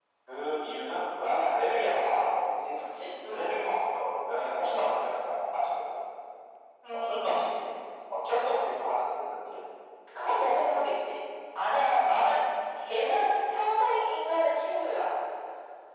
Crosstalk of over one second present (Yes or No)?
No